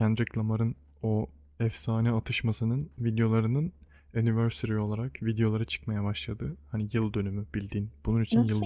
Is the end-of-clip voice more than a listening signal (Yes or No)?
Yes